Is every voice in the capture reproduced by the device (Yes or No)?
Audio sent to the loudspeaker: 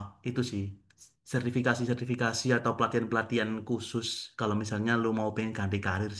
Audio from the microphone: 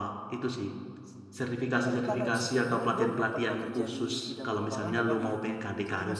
No